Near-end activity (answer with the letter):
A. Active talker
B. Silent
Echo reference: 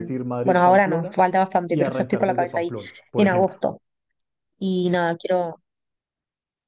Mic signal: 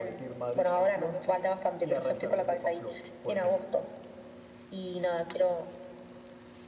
B